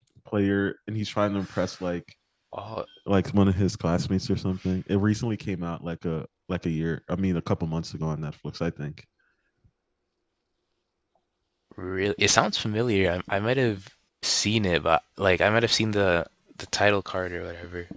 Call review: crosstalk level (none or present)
none